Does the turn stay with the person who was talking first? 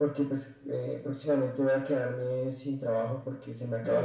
Yes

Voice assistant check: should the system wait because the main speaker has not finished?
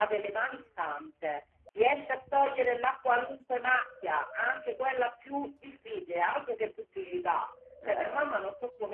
Yes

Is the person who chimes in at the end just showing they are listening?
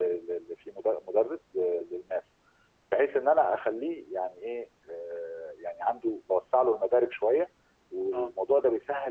Yes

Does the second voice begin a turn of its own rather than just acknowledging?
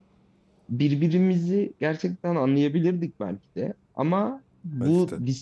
No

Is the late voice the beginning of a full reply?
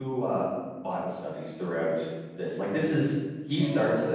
No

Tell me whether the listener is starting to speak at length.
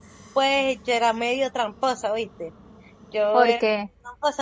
No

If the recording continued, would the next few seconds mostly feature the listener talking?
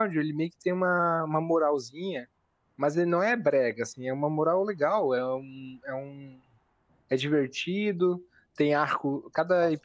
No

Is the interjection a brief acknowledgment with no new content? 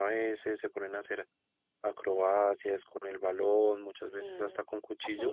No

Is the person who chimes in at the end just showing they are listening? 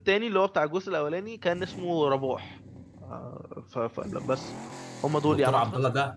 No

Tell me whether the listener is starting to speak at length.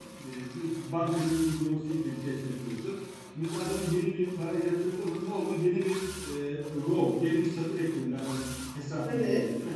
No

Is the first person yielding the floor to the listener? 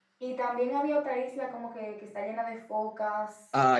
Yes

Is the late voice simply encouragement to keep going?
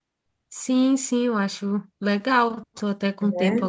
Yes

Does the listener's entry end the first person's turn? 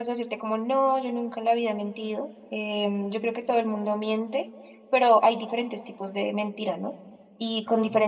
No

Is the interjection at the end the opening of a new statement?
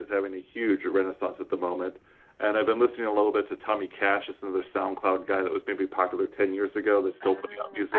Yes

